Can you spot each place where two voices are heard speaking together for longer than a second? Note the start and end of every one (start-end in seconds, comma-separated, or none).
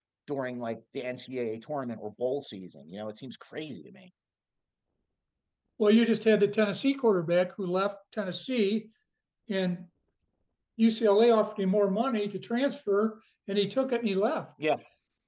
none